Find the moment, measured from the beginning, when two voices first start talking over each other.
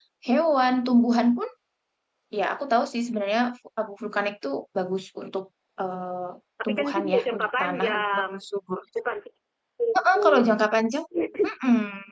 6.6 s

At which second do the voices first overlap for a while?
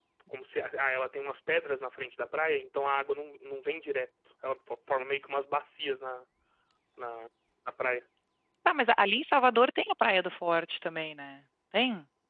none

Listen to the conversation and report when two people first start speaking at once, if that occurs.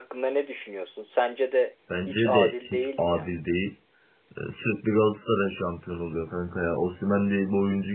1.9 s

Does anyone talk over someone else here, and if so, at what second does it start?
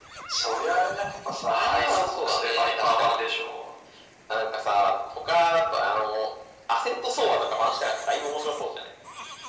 1.5 s

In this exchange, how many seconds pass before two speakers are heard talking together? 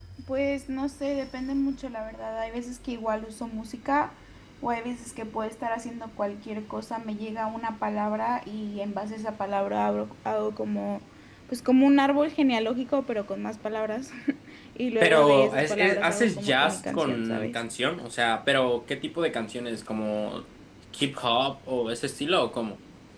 15.0 s

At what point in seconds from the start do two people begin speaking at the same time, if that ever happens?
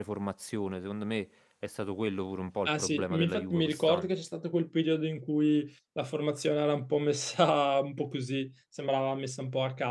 2.6 s

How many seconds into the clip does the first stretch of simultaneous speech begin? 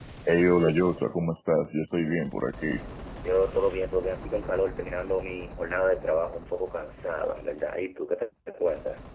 none

